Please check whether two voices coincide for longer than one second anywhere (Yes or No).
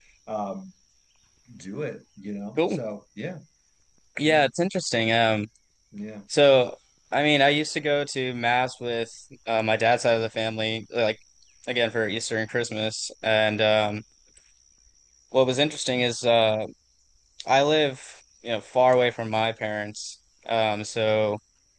No